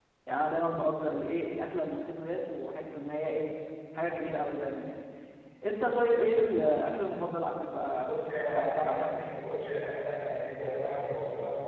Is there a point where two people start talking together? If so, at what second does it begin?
8.0 s

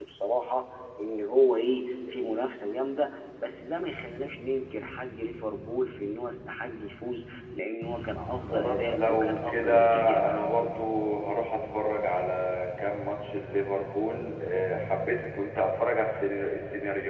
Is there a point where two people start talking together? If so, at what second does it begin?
8.5 s

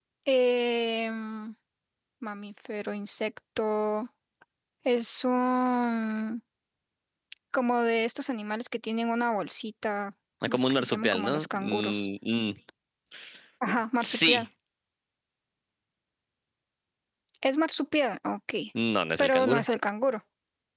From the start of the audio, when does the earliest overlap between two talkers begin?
10.4 s

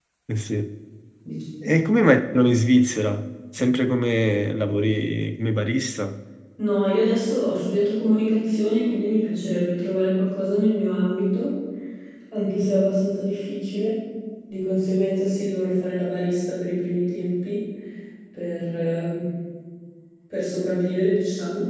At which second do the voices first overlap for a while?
none

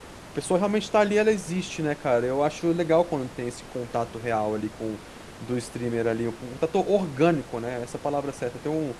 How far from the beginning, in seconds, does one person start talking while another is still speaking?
none

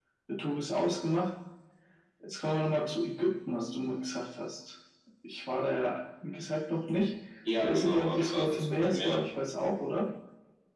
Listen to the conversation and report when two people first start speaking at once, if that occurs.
7.6 s

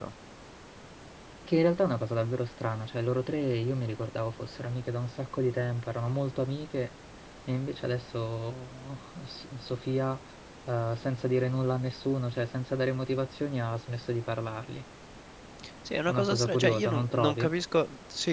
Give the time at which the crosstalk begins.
16.1 s

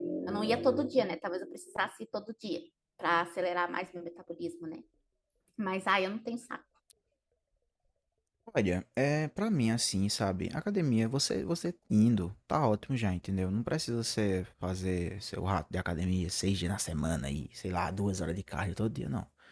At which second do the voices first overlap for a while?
none

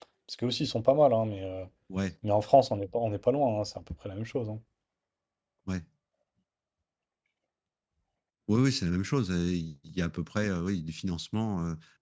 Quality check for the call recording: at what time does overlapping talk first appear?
none

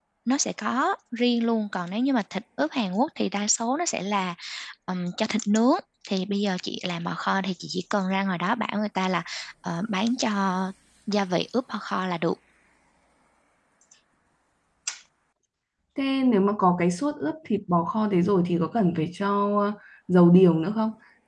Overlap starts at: none

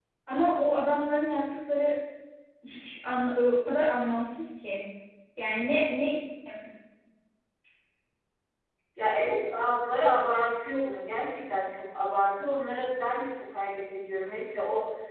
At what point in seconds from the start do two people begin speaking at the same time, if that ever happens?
none

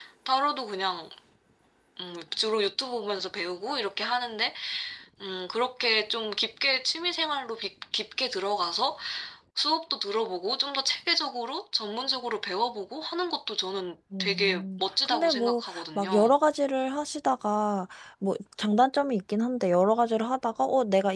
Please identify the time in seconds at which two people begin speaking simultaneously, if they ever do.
14.1 s

